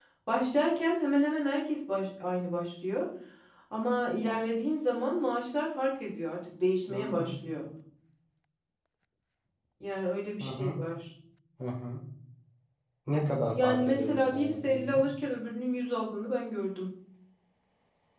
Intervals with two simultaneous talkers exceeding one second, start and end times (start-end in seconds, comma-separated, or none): 13.6-15.0